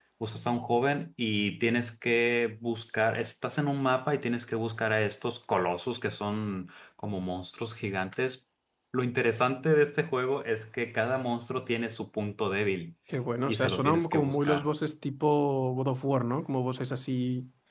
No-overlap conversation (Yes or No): No